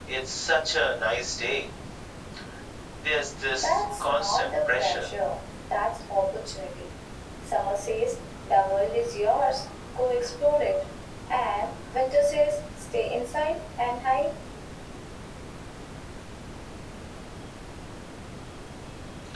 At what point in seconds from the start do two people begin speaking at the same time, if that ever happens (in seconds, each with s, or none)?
3.6 s